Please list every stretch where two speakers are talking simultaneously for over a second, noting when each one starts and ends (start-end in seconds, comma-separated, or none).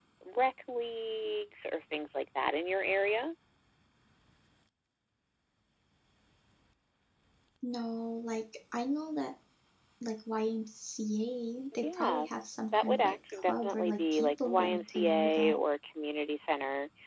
12.8-15.6